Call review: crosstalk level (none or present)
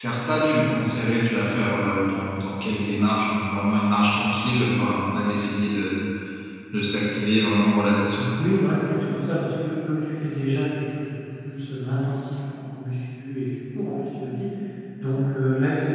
none